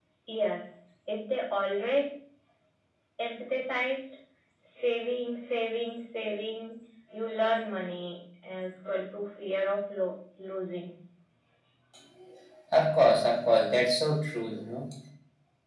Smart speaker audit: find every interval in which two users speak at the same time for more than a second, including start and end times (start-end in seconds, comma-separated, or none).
none